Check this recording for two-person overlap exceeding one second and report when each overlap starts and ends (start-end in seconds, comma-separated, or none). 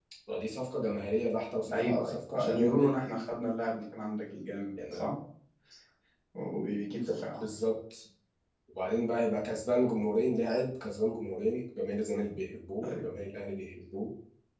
1.7-3.0